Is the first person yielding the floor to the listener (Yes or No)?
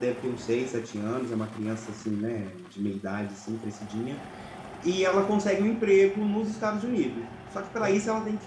No